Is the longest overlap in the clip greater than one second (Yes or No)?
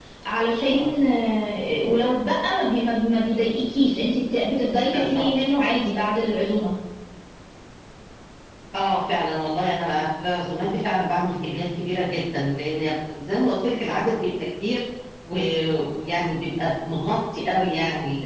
No